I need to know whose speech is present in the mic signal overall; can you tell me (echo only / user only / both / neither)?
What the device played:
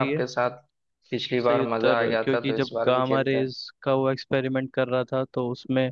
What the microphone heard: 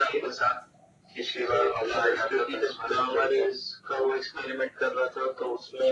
echo only